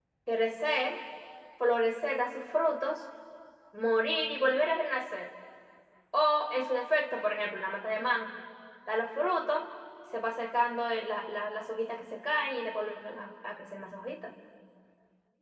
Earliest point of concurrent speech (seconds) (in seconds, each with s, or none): none